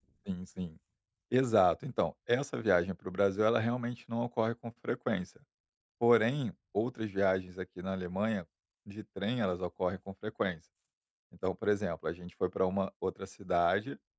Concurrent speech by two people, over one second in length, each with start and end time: none

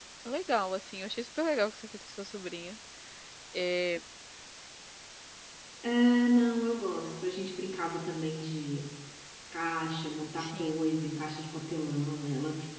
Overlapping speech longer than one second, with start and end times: none

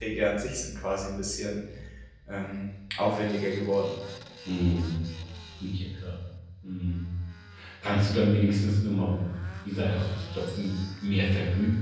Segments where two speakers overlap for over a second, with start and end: none

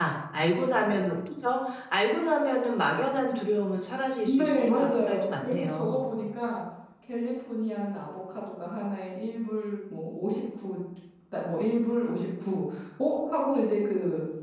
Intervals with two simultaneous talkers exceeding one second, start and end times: 4.3-6.0

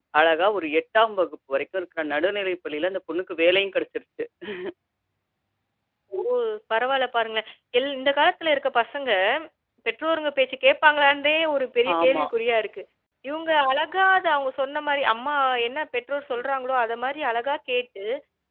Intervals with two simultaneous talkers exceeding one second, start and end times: none

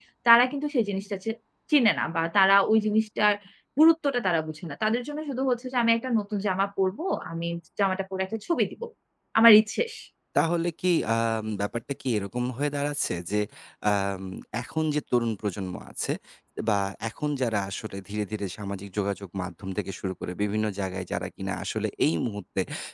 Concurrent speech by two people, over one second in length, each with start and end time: none

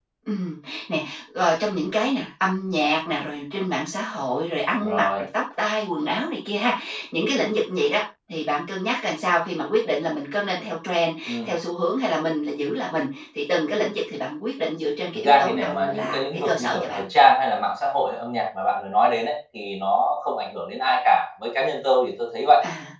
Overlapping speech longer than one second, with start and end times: 15.2-17.0

